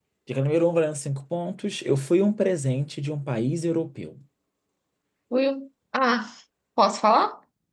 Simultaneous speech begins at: none

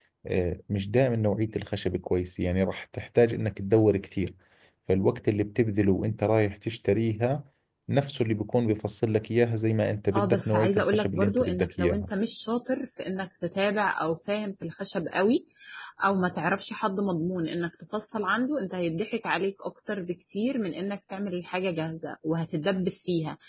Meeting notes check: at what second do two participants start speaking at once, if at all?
10 s

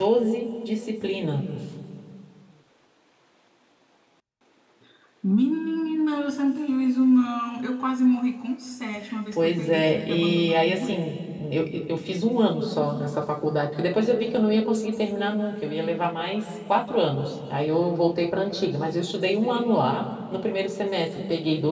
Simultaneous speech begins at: 9 s

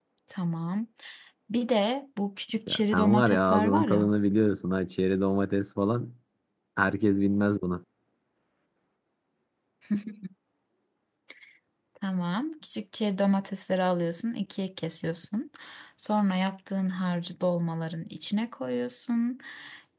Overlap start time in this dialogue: 3 s

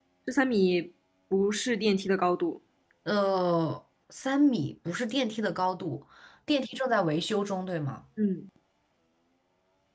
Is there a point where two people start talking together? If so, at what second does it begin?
none

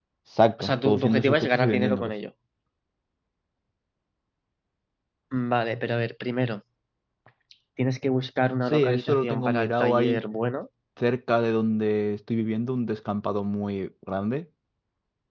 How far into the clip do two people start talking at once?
1 s

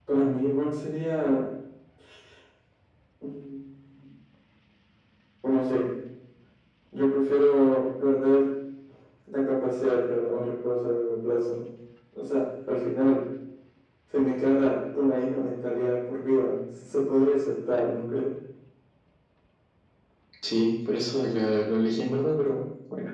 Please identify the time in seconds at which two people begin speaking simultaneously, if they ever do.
none

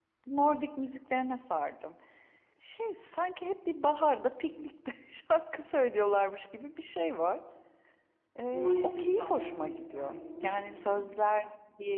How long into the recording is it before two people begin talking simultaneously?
9 s

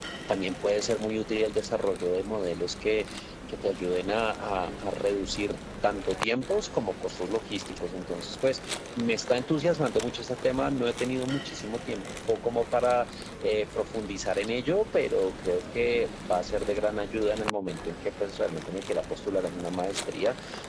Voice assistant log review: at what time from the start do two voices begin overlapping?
none

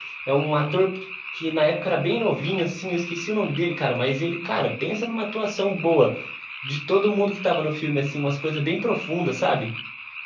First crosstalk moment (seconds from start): none

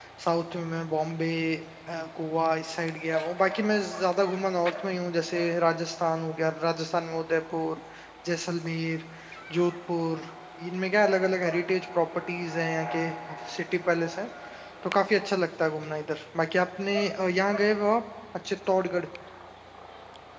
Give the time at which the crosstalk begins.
none

